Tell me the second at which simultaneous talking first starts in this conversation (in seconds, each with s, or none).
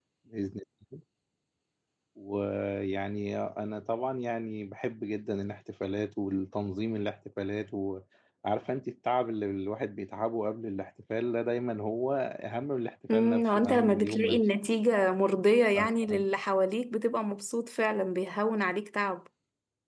13.1 s